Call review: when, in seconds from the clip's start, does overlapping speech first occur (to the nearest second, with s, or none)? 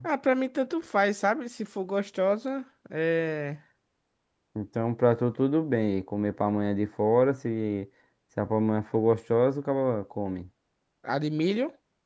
none